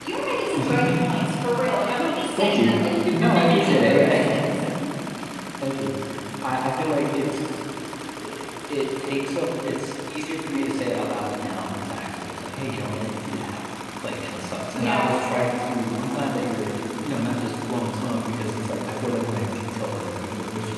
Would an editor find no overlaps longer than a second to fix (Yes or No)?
No